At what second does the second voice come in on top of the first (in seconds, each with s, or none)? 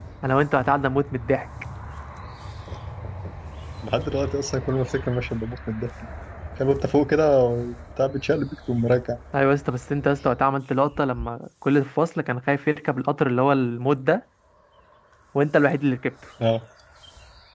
none